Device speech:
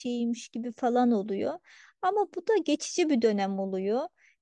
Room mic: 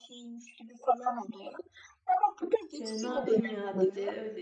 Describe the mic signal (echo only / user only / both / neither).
both